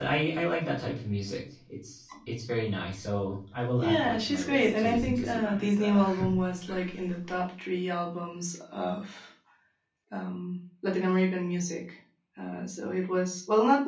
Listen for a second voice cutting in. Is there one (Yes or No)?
Yes